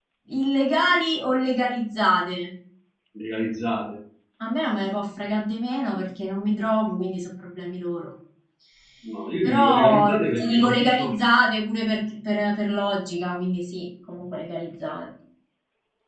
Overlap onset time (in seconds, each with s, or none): 9.4 s